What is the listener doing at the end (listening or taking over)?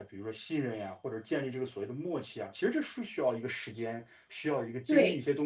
listening